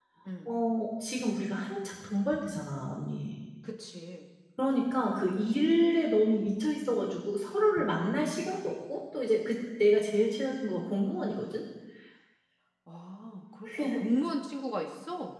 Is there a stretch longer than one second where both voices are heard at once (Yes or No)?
No